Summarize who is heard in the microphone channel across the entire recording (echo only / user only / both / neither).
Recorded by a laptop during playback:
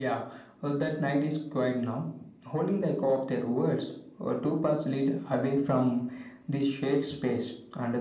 echo only